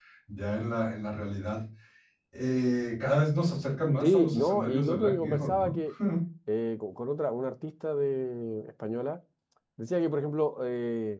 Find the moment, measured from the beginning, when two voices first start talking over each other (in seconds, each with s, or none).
4.0 s